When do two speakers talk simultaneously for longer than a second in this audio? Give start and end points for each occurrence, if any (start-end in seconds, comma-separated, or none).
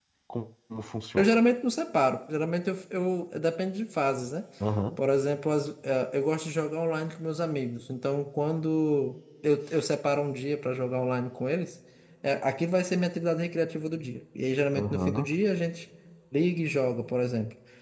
none